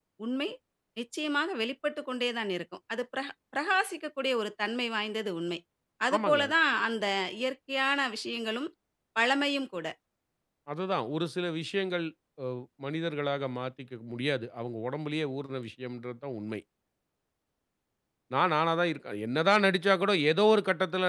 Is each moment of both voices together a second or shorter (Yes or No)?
Yes